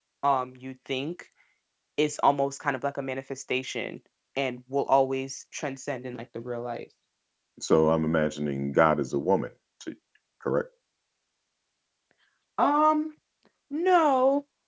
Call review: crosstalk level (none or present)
none